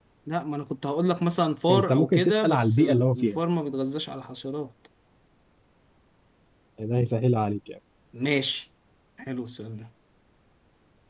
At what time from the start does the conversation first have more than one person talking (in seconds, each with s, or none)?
1.7 s